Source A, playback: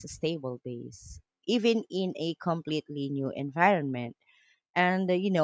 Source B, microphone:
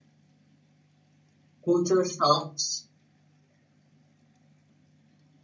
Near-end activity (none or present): present